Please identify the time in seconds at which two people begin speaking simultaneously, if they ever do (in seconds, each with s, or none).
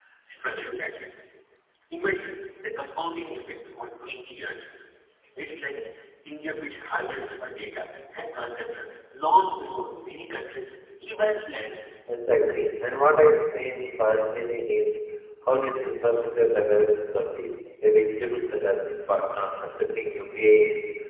none